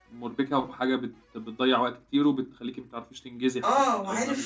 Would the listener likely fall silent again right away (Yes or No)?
No